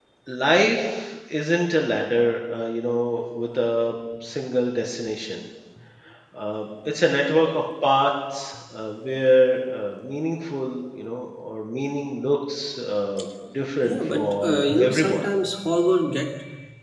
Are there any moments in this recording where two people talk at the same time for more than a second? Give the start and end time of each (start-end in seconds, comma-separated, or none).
13.8-15.2